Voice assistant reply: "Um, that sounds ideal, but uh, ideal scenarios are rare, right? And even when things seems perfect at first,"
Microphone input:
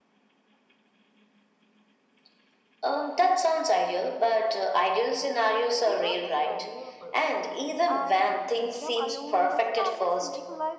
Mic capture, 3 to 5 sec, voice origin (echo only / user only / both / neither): echo only